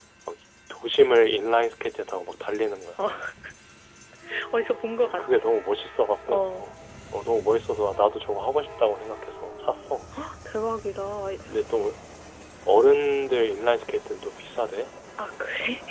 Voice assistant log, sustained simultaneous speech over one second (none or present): none